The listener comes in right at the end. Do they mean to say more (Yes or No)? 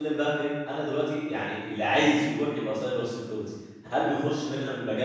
No